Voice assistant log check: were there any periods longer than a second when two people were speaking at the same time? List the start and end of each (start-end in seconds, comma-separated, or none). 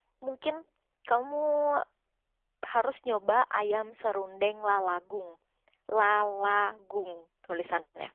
none